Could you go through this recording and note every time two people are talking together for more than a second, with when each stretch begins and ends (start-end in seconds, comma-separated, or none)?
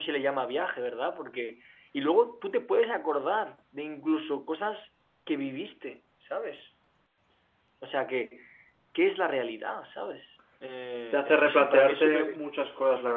11.1-12.4